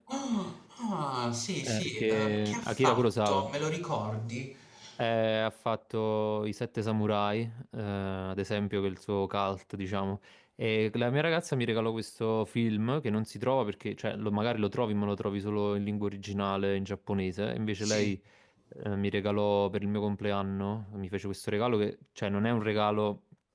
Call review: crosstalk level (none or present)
present